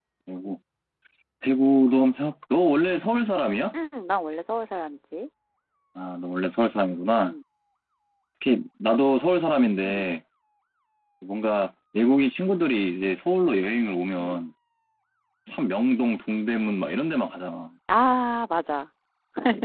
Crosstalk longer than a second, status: none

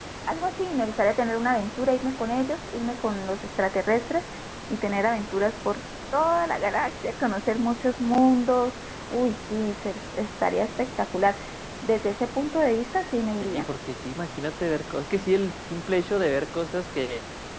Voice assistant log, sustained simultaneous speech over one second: none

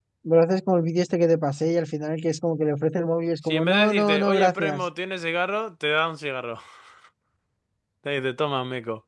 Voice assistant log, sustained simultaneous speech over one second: present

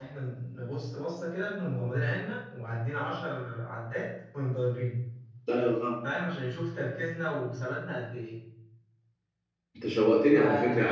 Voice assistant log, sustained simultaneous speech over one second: none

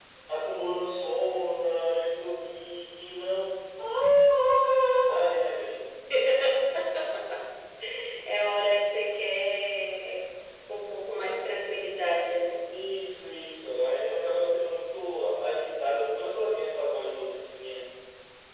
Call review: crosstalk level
none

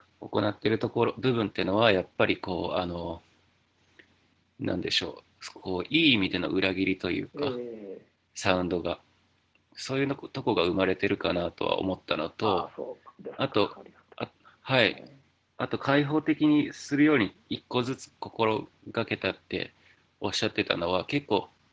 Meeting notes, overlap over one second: none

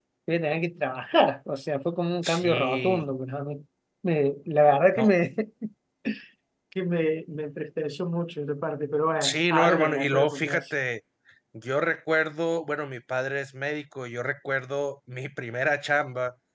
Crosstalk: present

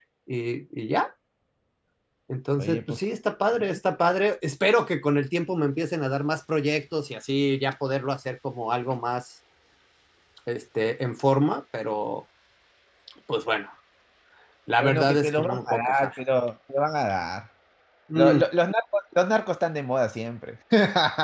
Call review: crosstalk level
present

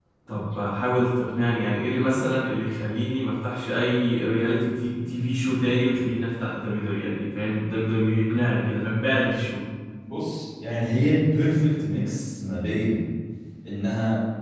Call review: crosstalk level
none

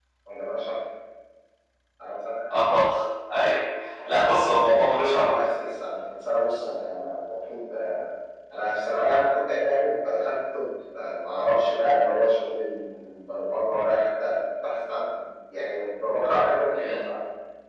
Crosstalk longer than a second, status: present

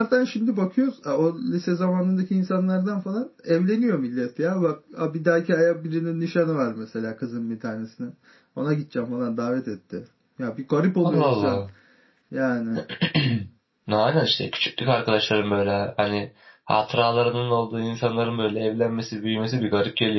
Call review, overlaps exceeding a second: none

